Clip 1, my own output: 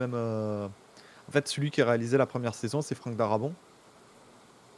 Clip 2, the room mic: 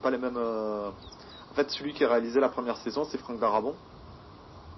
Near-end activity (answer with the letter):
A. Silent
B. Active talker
A